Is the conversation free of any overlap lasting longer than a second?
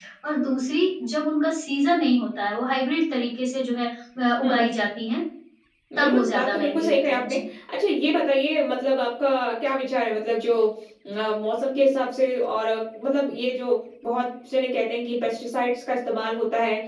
No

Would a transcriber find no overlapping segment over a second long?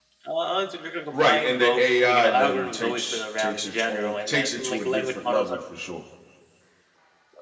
No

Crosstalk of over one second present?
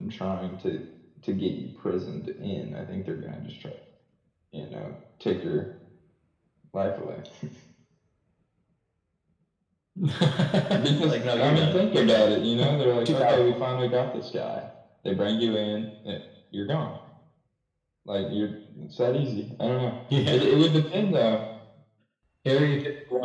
Yes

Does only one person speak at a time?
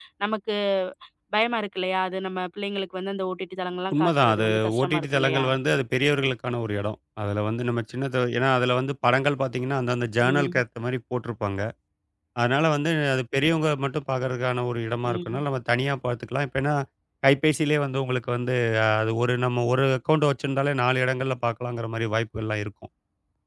No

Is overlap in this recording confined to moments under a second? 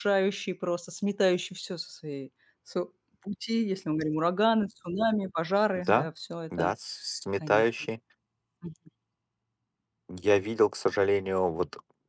Yes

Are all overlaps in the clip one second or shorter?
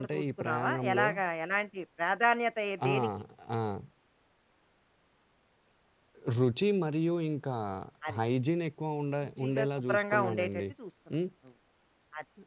No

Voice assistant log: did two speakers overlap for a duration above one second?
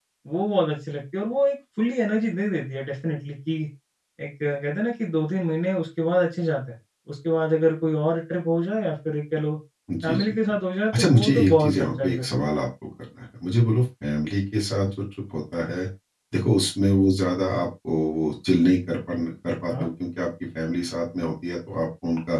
Yes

